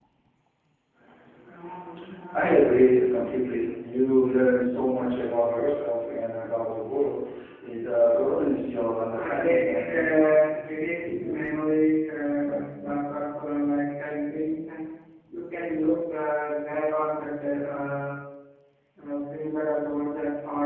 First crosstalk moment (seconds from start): 9.2 s

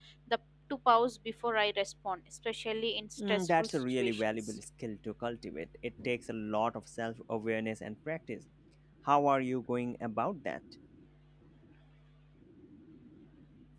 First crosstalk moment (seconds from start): 3.2 s

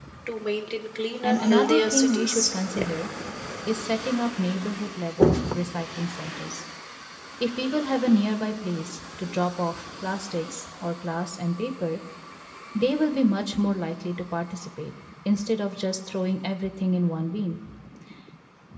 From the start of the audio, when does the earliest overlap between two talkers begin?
1.2 s

